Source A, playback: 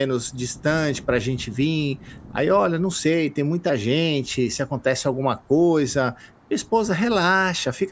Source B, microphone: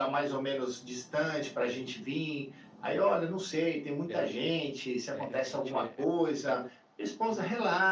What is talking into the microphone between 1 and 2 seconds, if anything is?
echo only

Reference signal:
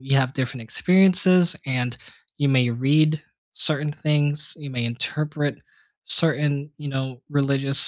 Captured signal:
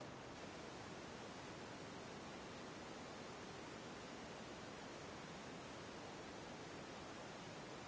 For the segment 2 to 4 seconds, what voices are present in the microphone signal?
neither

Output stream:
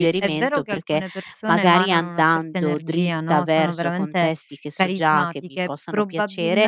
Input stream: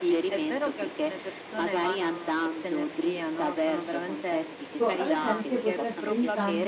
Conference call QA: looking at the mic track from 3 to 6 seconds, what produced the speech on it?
both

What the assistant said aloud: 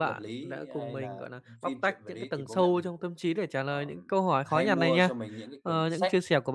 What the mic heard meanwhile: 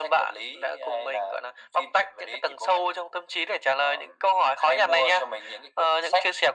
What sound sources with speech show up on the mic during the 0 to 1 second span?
echo only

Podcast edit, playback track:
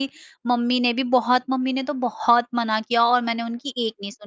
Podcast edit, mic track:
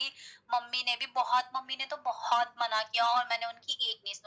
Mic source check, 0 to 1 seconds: echo only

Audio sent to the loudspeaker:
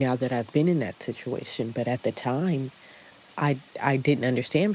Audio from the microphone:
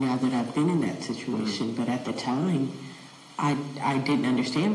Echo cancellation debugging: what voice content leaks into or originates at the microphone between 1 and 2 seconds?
both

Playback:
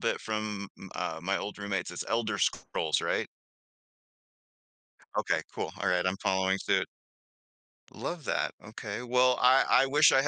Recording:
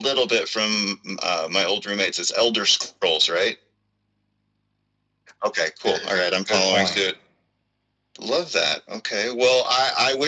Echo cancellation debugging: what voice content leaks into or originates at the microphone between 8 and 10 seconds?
echo only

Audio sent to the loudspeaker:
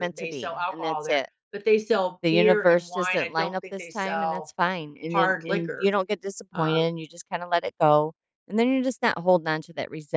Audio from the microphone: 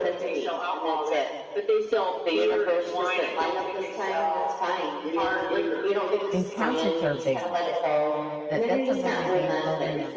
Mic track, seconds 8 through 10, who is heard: both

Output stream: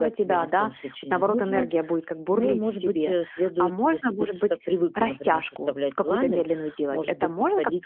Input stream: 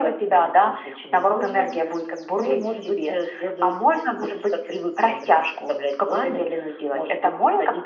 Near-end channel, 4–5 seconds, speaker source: echo only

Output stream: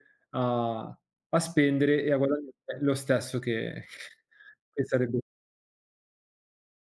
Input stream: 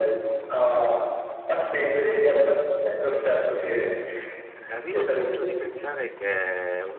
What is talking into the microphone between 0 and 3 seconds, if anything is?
echo only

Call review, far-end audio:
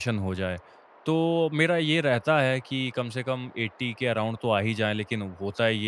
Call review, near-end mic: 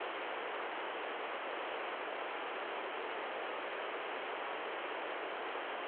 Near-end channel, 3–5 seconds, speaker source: neither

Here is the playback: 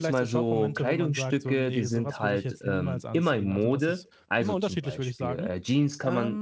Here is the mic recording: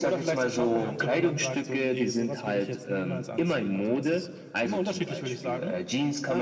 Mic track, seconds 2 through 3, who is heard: echo only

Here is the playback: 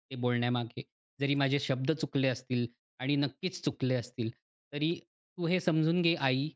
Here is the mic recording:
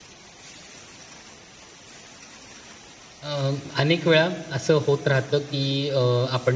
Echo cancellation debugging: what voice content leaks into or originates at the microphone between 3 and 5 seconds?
user only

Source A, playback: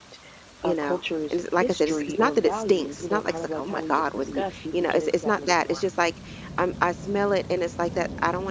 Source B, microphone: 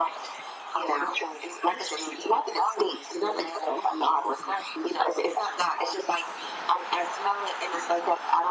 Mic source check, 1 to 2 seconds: echo only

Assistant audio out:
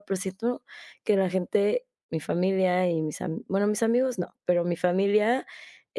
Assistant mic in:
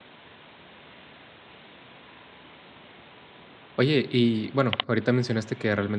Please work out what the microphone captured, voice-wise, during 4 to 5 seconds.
user only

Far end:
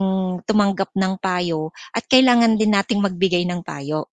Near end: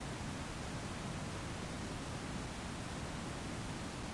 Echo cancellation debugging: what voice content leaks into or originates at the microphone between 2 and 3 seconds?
neither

